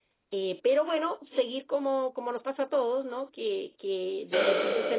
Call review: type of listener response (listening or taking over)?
listening